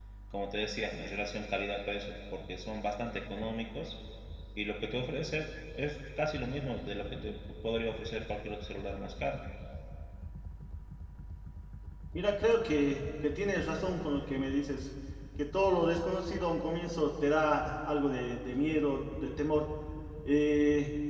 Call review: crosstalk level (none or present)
none